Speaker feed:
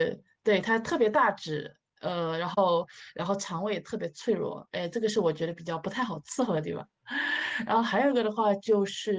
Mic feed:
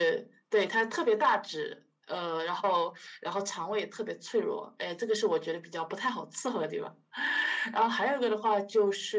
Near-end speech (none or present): none